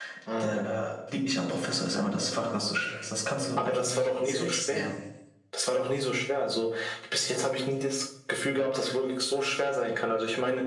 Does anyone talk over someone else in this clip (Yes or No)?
Yes